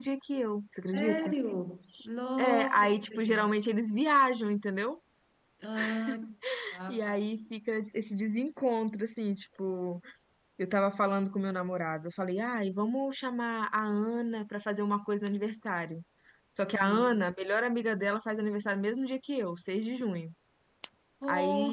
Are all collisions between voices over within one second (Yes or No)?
No